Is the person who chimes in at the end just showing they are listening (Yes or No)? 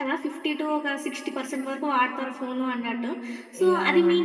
Yes